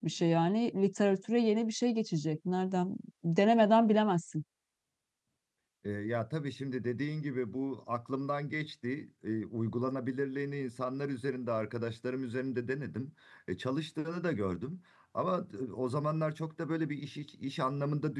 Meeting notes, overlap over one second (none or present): none